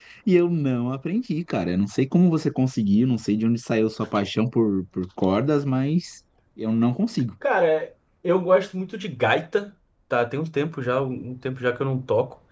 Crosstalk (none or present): none